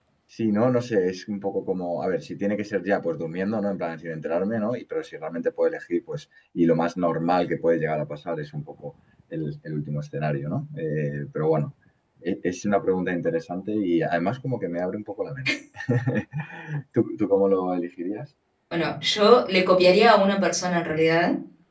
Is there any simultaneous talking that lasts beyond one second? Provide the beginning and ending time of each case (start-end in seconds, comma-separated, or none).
none